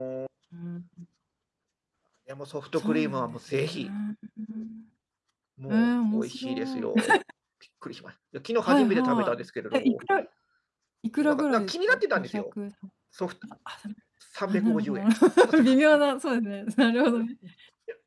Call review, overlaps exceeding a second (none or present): present